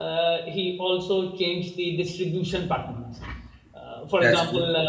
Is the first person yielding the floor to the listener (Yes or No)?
No